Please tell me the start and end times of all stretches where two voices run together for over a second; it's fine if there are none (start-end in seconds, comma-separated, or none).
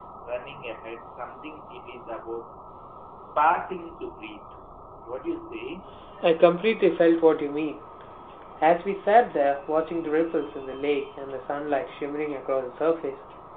none